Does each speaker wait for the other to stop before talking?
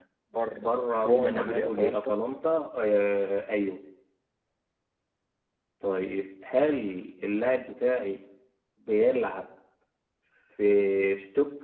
No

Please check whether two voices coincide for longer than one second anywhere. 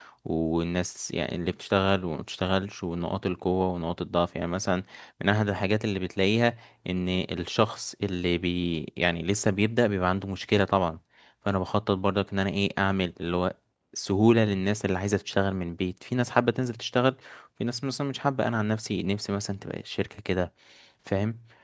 No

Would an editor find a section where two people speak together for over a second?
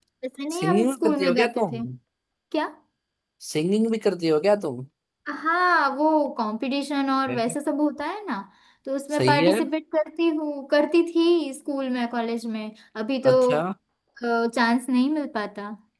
Yes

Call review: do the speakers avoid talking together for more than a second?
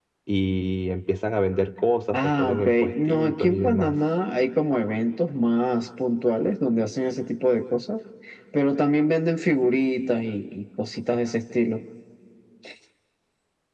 No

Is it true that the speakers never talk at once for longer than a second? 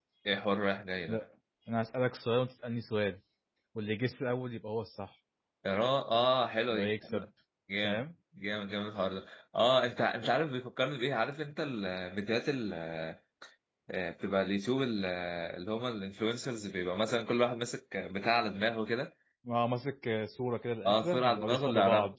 No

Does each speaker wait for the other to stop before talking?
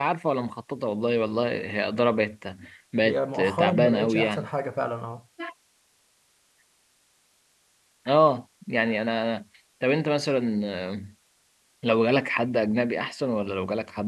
No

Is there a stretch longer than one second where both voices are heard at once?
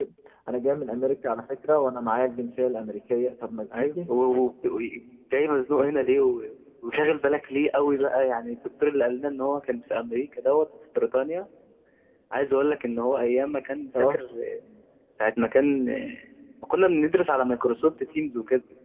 No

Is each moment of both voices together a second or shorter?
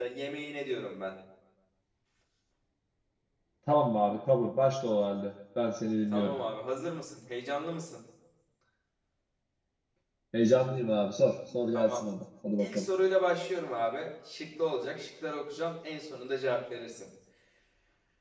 Yes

